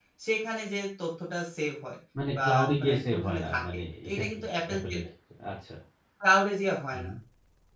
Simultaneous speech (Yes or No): Yes